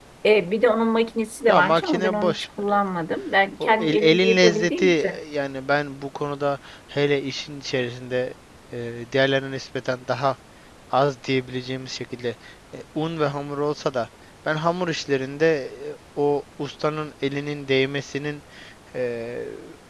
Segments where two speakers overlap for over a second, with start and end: 1.4-2.8, 3.6-5.1

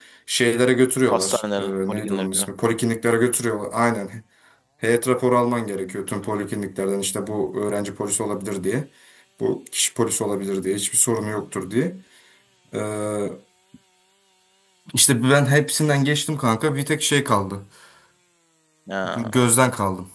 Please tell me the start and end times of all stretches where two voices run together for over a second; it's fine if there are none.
1.1-2.5

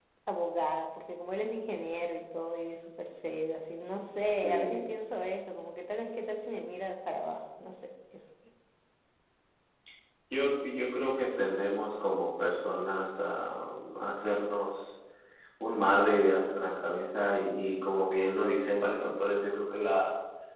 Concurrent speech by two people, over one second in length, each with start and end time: none

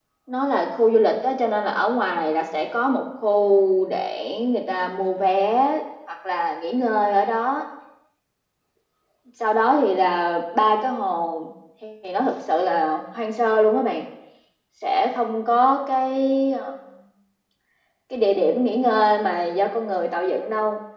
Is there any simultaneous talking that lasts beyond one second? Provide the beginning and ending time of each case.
none

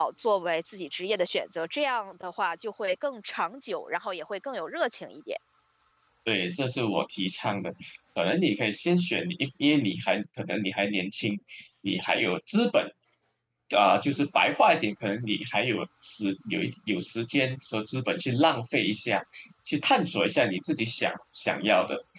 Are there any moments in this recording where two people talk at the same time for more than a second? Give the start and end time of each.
none

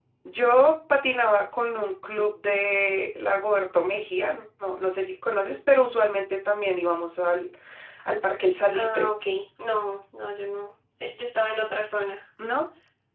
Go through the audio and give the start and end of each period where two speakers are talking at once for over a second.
none

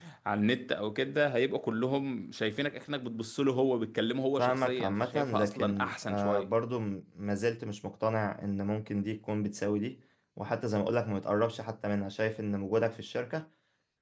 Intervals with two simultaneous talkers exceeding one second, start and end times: 4.4-6.5

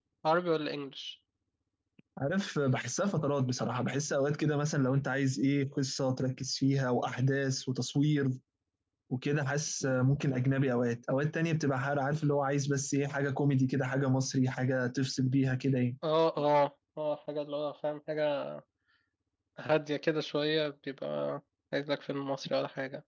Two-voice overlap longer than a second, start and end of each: none

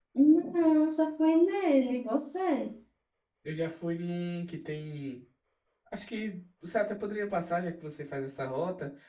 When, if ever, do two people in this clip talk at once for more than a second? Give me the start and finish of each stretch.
none

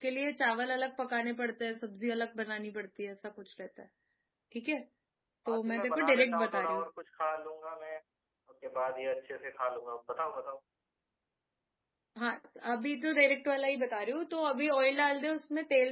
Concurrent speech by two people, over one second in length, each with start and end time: 5.5-6.8

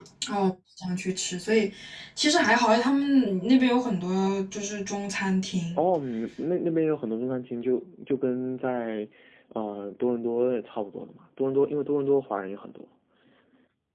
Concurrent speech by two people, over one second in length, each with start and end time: none

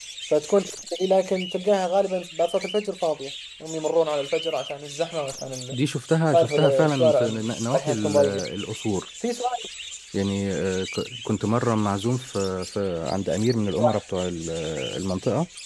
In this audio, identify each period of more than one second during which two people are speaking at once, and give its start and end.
6.3-8.2

